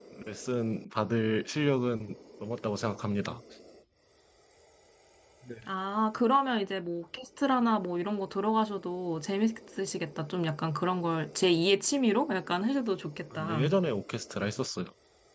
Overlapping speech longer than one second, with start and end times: none

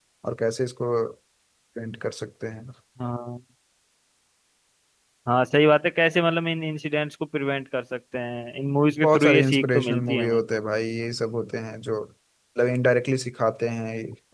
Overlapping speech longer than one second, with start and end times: 9.0-10.4

